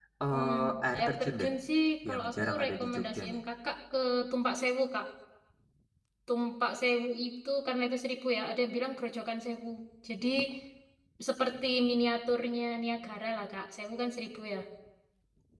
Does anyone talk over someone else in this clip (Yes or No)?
Yes